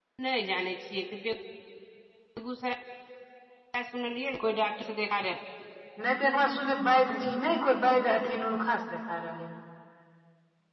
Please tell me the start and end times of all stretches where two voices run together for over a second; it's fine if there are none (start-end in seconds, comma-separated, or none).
none